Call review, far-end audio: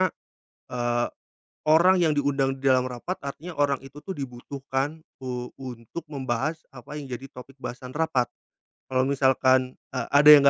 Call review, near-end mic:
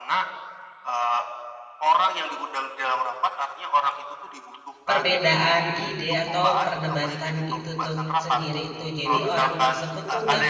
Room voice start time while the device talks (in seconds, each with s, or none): 4.9 s